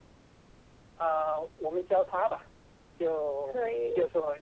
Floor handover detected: No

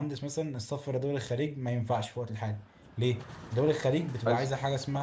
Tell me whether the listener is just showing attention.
Yes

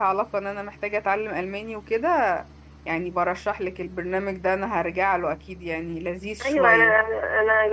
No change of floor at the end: No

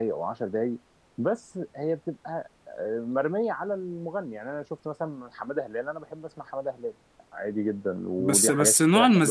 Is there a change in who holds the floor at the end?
Yes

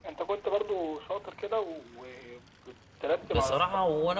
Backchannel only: No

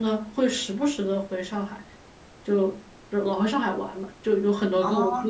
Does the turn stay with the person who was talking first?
Yes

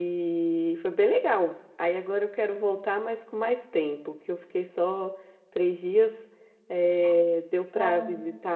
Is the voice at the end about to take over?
No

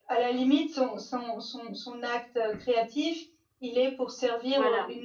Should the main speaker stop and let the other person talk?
No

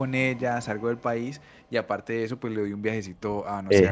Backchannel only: Yes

